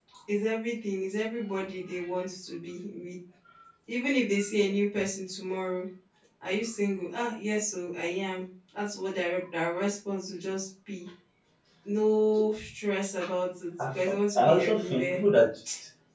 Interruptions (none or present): present